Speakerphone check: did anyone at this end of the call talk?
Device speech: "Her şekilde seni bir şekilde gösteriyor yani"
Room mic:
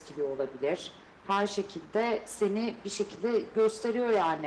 No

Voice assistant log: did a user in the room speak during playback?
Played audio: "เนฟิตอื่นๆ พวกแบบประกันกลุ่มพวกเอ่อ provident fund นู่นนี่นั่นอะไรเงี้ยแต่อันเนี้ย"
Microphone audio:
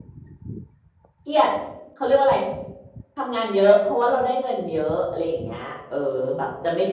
Yes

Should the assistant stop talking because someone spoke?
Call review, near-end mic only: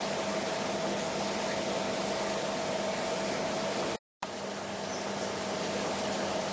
No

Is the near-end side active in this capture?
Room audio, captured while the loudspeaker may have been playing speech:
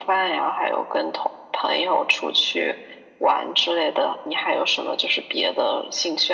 No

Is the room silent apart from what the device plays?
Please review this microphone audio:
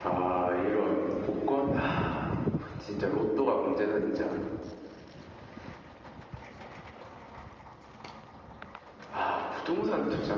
Yes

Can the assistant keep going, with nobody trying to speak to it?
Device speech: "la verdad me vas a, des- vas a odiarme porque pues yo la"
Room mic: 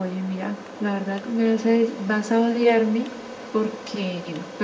Yes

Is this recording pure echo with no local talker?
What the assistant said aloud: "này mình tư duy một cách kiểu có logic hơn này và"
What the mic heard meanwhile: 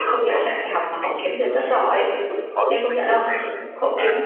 No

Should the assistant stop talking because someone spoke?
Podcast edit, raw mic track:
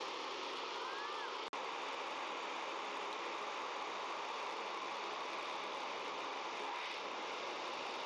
No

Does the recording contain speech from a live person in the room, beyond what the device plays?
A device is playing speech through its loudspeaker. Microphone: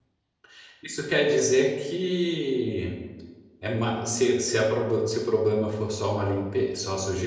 Yes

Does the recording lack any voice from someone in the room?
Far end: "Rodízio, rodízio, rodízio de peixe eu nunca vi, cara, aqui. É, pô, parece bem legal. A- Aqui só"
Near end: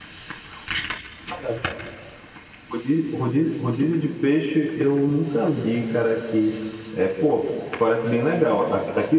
Yes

